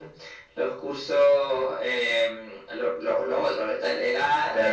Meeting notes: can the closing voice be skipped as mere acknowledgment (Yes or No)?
No